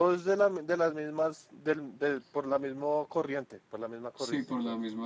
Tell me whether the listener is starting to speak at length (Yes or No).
Yes